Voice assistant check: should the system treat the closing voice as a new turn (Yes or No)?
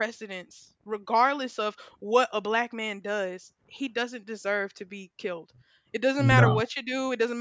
No